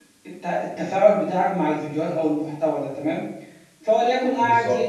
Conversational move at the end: listening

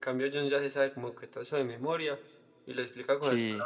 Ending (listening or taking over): listening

